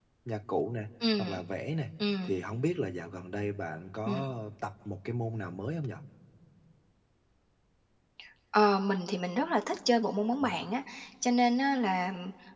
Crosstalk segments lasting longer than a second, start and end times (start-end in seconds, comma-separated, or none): none